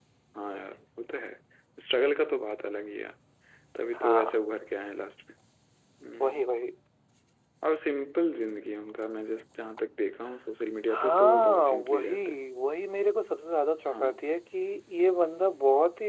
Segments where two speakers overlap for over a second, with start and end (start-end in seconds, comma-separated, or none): 10.9-12.2